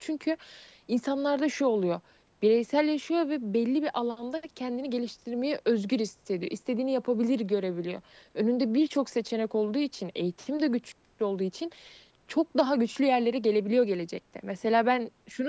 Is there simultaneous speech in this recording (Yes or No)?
No